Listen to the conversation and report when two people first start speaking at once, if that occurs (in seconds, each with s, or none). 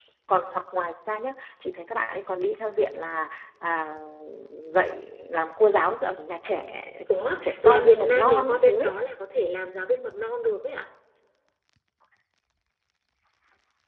7.4 s